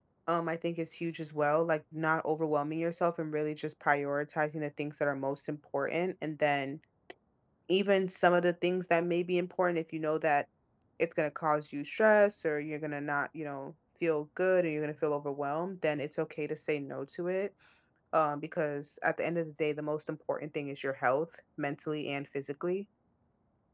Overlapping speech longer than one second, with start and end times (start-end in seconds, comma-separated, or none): none